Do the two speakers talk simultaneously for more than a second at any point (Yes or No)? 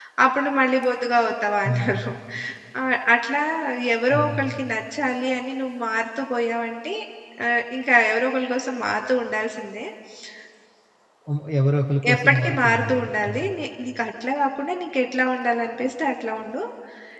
Yes